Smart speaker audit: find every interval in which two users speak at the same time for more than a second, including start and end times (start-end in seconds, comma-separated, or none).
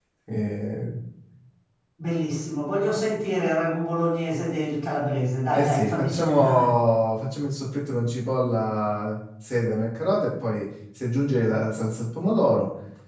5.5-6.7